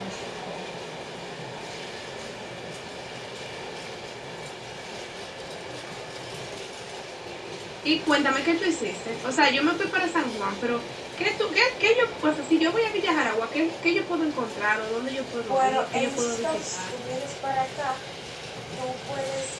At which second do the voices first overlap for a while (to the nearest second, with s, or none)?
15 s